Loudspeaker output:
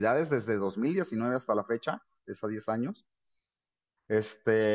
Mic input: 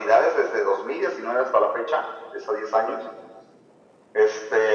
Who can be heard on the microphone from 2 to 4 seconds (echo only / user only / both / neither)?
echo only